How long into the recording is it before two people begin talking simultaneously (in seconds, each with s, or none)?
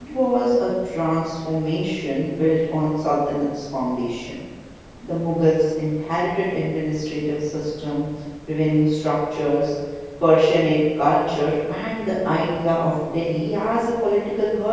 none